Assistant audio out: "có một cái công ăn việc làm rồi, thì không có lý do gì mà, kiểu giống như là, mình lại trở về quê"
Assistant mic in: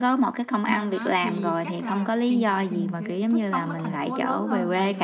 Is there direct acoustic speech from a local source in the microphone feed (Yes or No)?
Yes